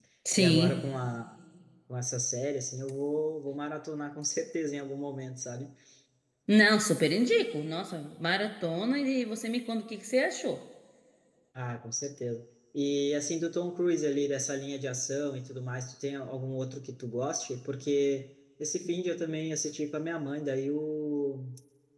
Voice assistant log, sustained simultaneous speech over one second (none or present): none